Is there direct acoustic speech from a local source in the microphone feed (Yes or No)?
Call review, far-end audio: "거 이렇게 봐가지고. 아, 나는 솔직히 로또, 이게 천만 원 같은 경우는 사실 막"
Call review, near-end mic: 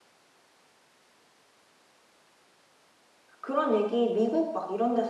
Yes